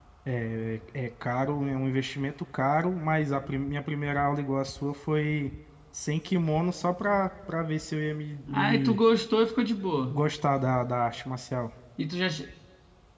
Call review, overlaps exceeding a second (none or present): none